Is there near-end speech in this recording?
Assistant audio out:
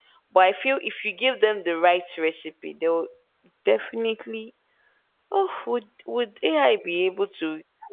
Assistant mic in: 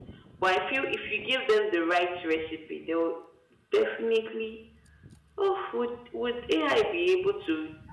No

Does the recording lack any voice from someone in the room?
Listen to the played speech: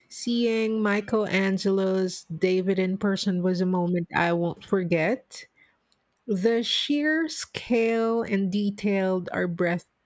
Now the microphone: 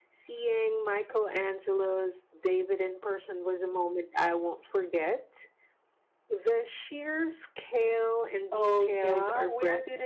No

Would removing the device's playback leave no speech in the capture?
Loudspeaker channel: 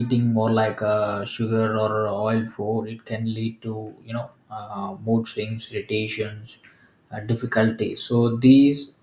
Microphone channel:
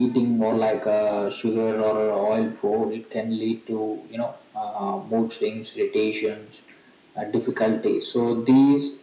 Yes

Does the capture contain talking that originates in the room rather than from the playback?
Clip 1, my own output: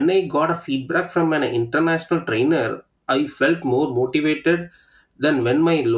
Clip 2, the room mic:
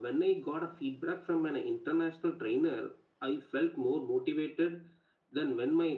No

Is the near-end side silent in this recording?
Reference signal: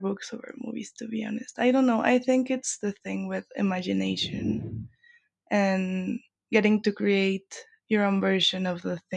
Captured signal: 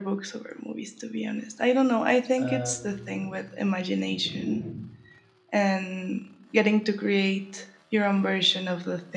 No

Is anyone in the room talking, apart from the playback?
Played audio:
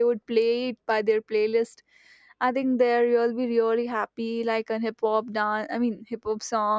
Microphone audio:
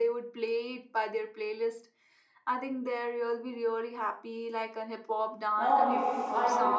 Yes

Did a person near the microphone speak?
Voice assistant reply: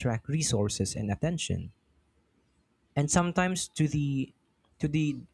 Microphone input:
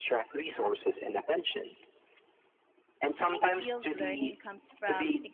Yes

